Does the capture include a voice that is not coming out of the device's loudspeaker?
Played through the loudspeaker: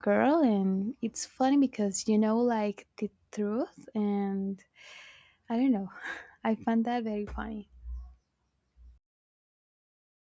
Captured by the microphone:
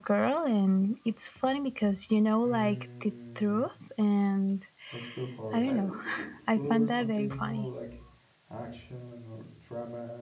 Yes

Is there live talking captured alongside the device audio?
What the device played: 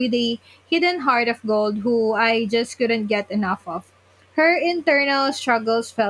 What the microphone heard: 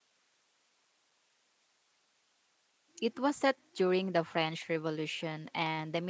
Yes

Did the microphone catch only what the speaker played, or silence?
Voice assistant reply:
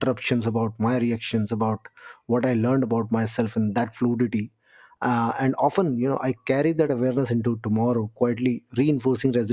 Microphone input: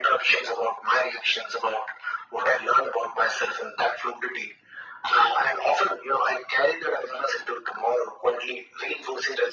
Yes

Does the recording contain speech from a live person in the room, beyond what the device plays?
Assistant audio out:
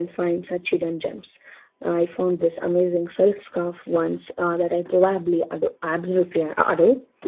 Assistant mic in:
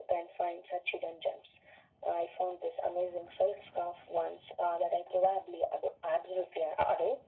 No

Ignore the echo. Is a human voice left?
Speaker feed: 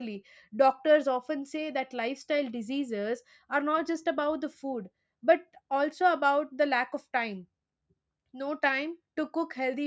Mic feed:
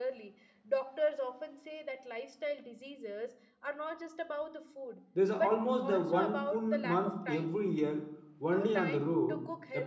Yes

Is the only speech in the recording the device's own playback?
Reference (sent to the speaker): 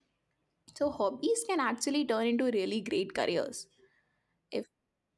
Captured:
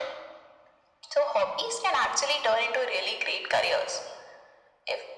Yes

